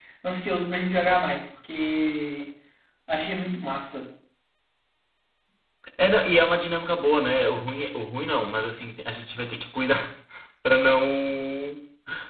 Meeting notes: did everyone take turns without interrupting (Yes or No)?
Yes